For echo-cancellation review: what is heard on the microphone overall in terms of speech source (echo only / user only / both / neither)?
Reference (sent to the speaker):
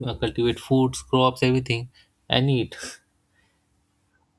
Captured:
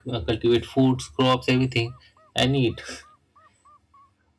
echo only